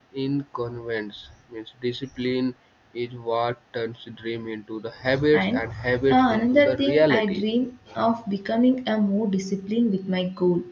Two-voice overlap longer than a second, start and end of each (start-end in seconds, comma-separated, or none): 6.1-7.4